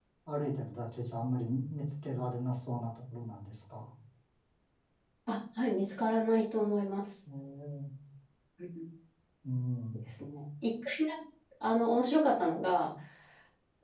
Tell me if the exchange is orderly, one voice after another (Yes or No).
Yes